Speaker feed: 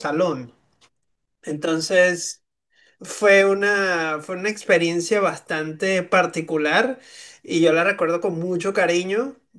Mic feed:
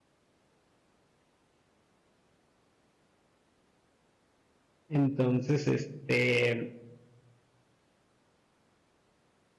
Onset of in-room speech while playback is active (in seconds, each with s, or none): 4.9 s